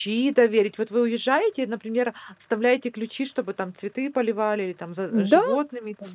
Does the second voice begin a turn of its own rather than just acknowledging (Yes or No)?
Yes